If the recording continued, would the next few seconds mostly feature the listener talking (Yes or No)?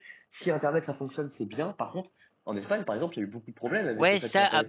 Yes